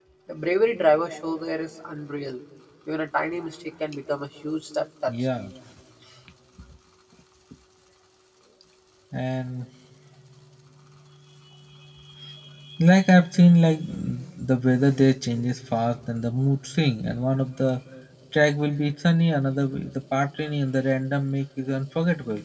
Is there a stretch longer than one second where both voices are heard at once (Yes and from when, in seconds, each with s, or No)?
No